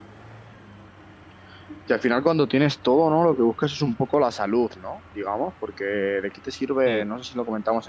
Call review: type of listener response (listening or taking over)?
listening